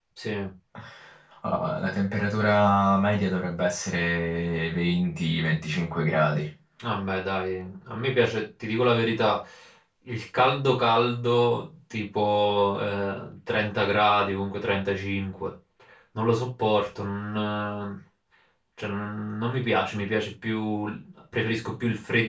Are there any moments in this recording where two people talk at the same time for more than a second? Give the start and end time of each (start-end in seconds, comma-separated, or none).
none